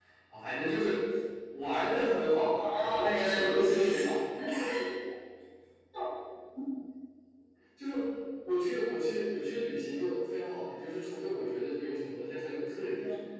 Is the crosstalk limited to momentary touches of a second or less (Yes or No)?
No